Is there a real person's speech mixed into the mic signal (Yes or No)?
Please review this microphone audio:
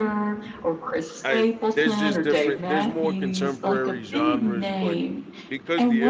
Yes